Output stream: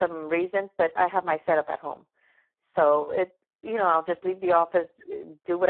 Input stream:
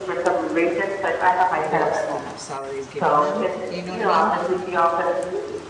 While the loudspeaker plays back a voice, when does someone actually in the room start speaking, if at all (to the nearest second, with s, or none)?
2 s